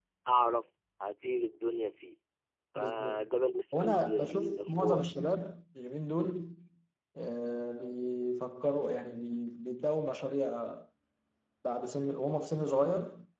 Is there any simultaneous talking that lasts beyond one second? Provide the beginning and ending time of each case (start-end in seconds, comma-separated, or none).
3.8-5.0